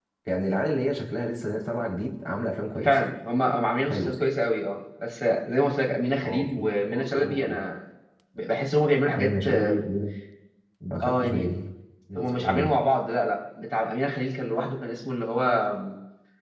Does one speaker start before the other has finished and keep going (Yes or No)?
Yes